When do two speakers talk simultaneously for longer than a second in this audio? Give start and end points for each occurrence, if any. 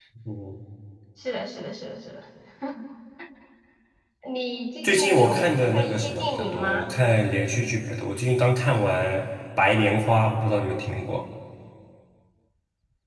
4.8-6.9

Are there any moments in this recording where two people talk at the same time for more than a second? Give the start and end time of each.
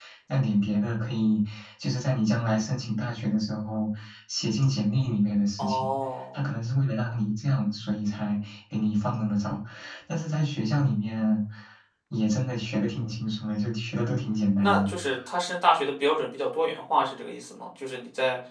none

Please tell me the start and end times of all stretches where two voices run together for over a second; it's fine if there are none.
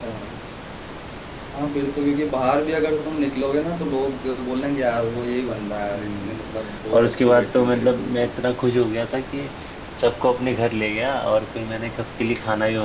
6.9-8.3

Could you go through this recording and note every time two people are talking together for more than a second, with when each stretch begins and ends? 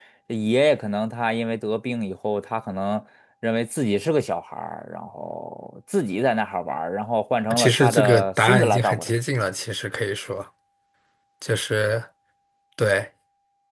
7.5-9.1

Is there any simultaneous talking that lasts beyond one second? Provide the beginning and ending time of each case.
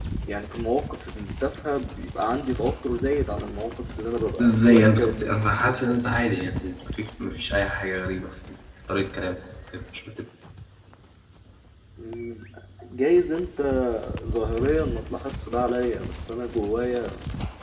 4.4-5.8

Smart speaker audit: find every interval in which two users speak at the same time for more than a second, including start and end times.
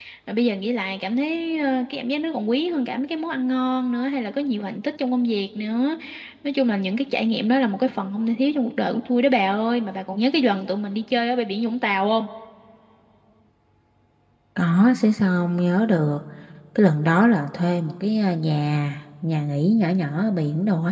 none

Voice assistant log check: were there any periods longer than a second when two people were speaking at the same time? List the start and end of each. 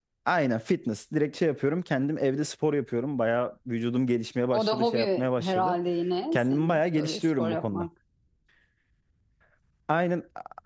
4.5-5.8, 6.3-7.9

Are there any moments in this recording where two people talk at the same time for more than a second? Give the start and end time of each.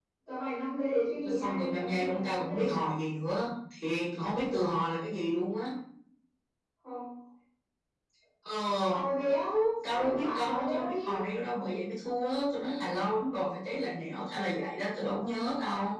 1.2-2.8, 9.8-11.1

